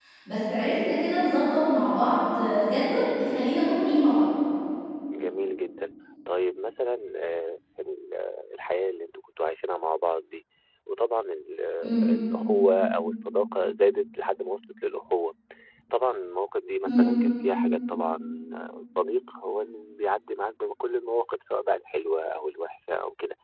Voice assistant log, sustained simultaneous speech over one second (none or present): none